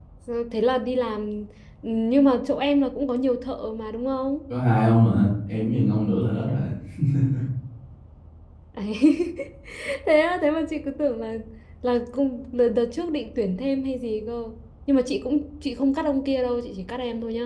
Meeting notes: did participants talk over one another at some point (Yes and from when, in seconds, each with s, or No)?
No